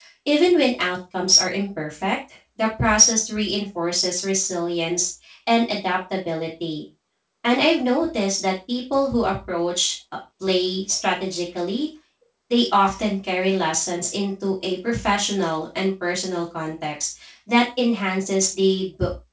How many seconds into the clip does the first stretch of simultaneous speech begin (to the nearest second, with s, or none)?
none